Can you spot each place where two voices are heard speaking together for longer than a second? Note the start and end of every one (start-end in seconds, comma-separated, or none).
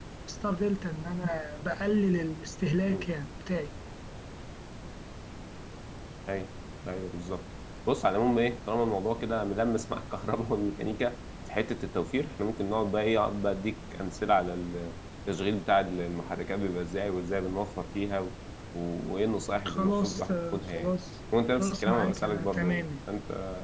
19.7-20.9, 21.6-22.9